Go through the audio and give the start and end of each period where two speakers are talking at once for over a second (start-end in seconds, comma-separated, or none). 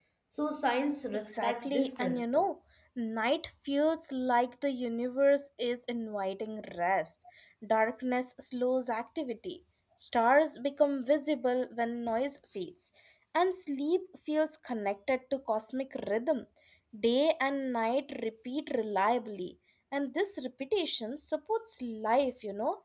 1.3-2.5